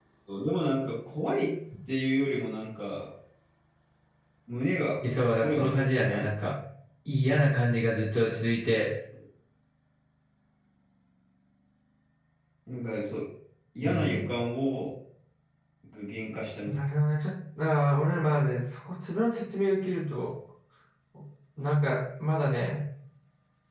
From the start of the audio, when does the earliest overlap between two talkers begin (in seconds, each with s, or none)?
5.0 s